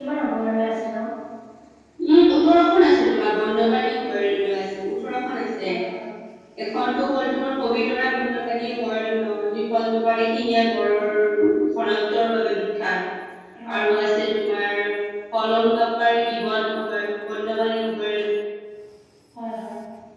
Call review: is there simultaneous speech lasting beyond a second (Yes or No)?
No